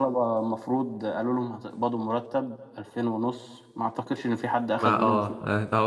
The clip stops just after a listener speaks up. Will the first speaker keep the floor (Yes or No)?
No